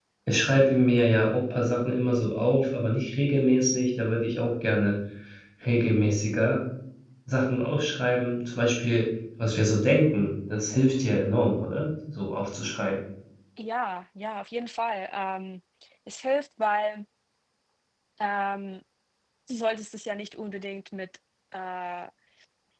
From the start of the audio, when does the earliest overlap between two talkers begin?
none

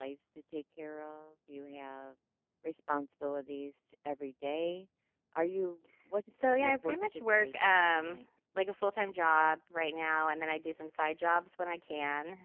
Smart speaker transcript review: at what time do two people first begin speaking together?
6.4 s

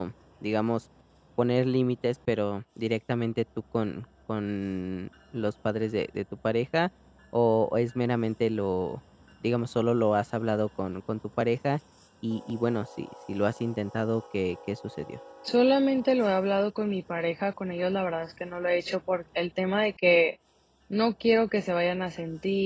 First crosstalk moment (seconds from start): none

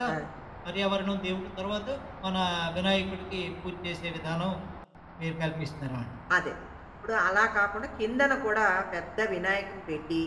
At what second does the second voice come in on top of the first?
none

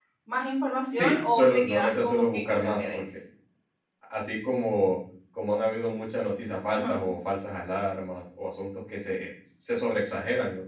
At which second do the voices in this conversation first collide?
0.9 s

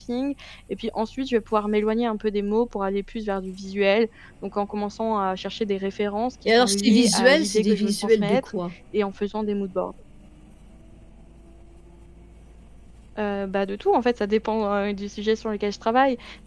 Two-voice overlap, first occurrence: 6.5 s

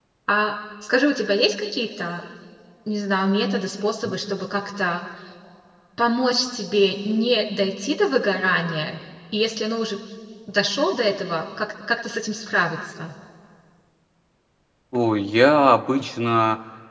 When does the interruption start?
none

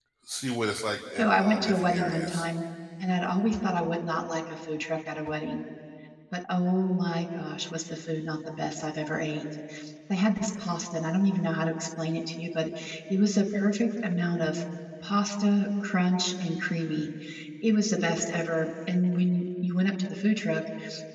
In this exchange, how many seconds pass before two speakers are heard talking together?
1.2 s

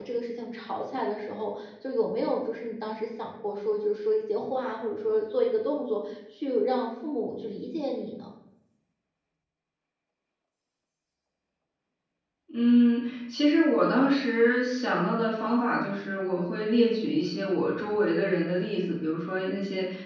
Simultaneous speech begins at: none

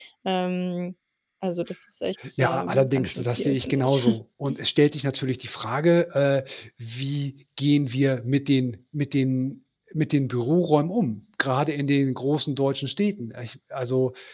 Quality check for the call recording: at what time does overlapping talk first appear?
2.2 s

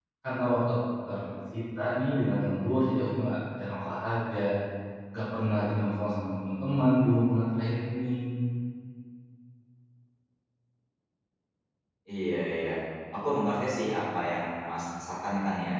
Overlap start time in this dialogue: none

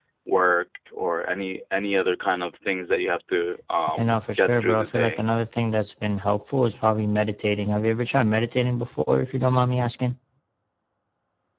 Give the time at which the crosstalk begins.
4.0 s

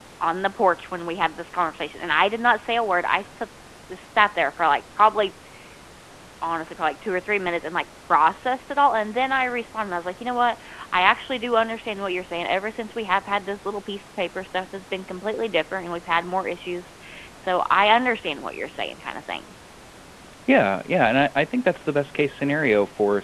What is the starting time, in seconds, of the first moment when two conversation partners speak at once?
none

